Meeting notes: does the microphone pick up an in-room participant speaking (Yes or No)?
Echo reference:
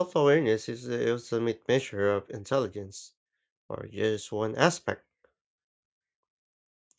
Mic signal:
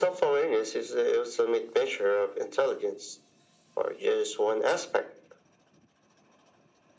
No